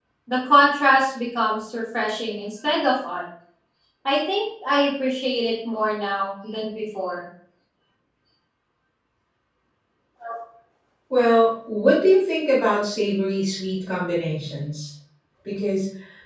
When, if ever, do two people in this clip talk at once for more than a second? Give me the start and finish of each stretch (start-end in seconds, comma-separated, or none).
none